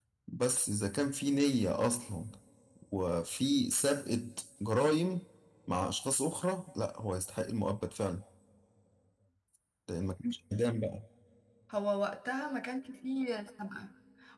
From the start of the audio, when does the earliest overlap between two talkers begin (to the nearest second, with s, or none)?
none